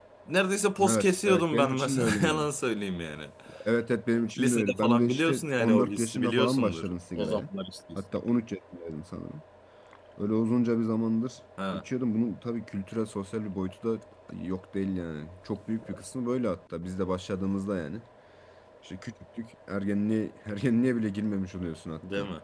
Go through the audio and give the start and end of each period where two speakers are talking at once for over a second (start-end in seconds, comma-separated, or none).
0.9-2.5, 4.4-7.4